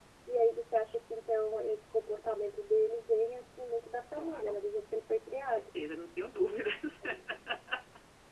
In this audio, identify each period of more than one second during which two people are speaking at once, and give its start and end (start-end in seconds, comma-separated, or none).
none